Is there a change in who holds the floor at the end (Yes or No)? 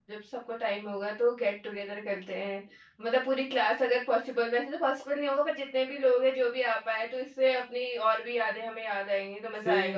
Yes